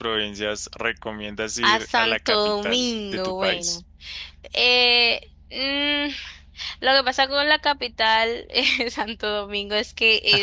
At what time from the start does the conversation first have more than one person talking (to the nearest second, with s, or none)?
2 s